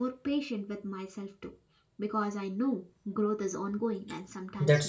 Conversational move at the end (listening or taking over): taking over